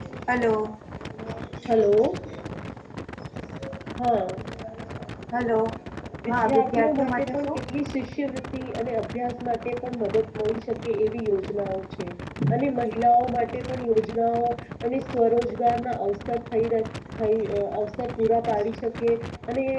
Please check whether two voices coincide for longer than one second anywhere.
Yes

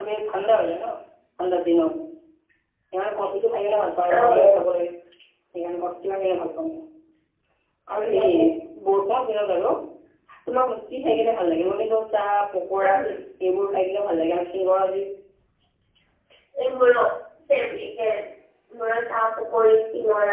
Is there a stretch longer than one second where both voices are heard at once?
No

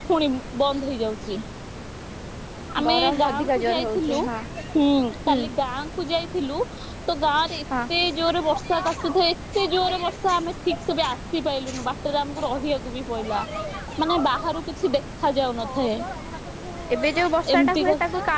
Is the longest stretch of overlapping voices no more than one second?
No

